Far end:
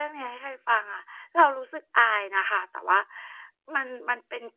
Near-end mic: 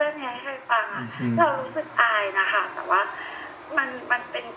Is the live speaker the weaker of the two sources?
Yes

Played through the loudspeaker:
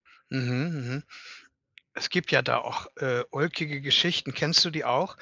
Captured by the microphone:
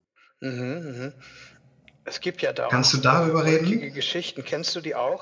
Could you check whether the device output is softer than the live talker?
Yes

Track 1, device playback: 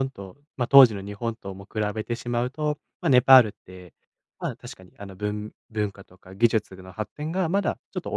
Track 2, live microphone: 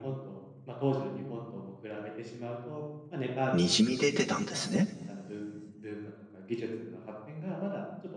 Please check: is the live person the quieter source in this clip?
No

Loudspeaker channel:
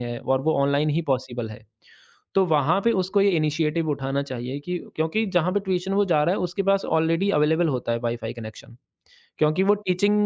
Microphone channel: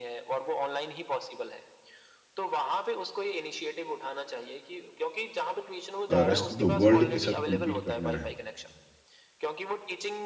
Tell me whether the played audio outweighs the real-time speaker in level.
No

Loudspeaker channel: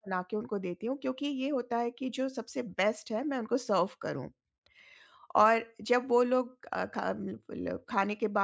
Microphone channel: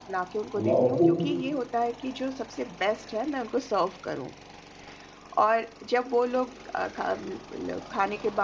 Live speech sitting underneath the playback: No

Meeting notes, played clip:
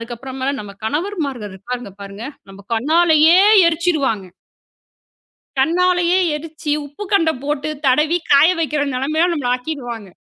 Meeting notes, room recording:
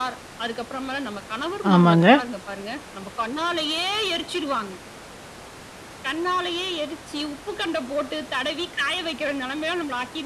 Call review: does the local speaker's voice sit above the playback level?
Yes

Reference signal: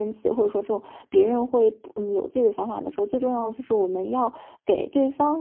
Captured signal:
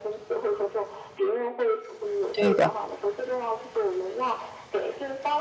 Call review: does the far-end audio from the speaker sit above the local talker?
No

